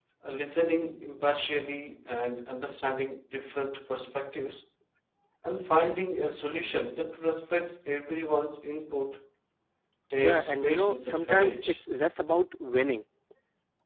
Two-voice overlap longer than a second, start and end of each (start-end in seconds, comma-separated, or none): 10.2-11.8